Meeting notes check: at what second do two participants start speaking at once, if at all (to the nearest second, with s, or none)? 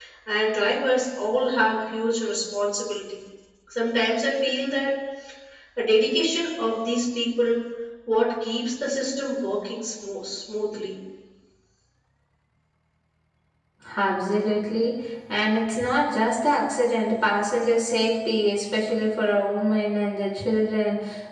none